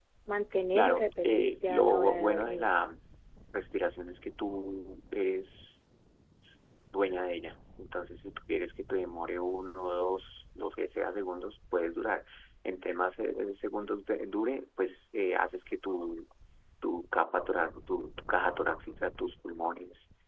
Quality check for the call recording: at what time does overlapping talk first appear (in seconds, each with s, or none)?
0.7 s